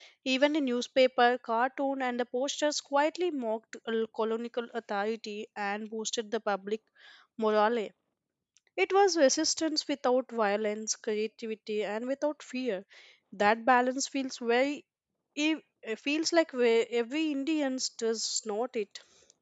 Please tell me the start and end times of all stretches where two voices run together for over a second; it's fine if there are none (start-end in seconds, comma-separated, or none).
none